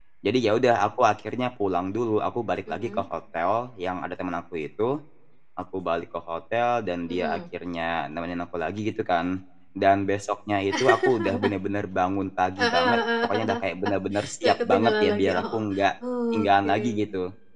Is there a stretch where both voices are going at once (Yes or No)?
Yes